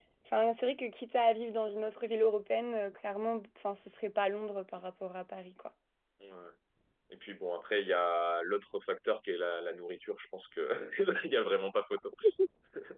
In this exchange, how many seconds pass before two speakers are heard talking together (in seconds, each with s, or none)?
none